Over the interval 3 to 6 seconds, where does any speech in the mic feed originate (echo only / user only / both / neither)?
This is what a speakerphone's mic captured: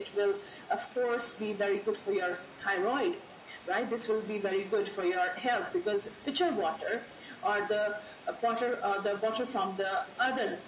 echo only